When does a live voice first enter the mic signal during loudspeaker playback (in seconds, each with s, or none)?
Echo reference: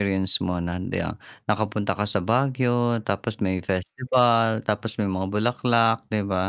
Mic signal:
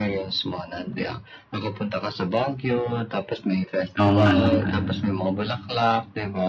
4.0 s